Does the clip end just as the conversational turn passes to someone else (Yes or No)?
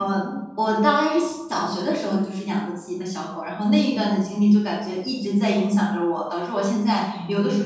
No